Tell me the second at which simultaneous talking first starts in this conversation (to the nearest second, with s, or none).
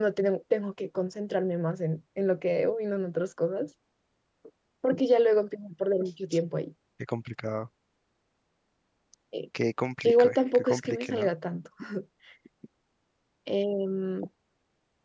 10 s